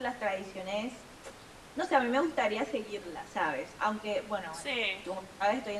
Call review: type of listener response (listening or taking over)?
listening